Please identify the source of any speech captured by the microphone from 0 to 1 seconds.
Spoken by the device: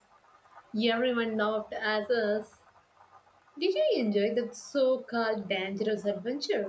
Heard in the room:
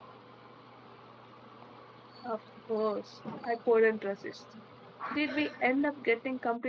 neither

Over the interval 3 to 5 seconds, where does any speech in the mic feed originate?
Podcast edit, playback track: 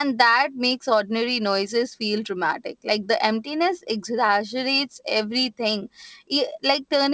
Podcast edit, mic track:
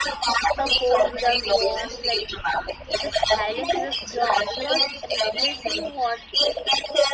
both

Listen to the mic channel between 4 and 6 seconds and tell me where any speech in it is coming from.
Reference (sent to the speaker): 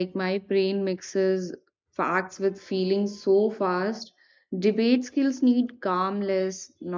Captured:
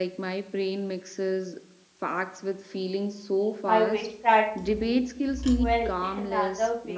both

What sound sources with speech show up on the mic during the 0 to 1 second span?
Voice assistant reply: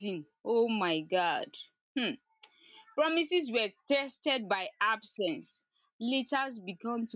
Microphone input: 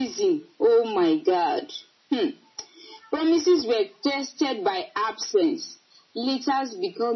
echo only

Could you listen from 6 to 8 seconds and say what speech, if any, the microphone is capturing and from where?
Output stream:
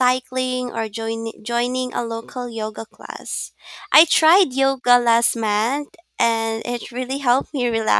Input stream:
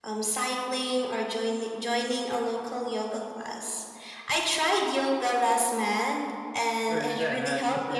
both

